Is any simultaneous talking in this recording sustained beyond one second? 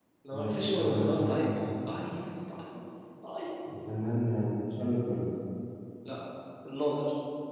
Yes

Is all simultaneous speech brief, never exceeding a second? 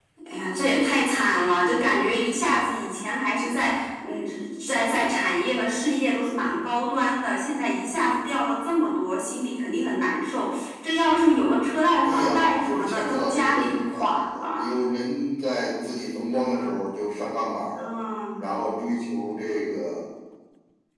No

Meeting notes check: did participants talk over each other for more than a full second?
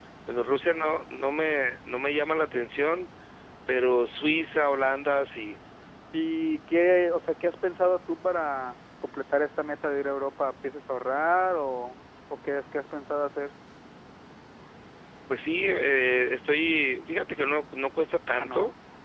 No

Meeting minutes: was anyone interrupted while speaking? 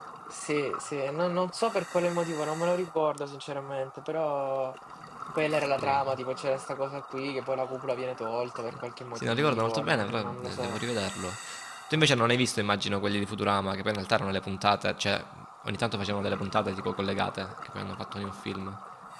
Yes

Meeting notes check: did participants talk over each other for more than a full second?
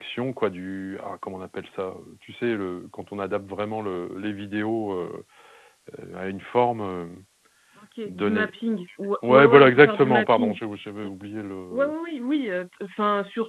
Yes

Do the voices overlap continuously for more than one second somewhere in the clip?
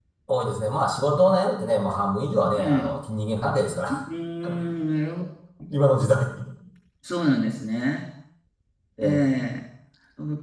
No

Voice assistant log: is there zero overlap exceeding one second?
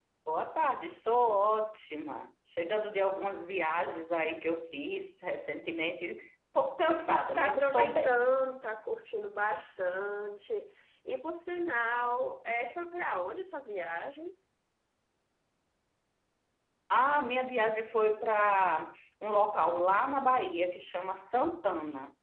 No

